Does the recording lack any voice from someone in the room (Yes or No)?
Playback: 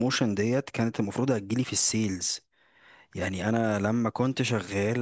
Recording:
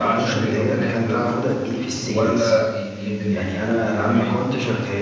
No